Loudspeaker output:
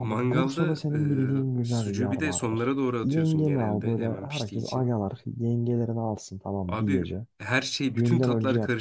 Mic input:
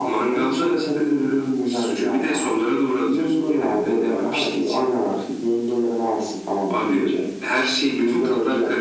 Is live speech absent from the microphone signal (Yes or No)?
Yes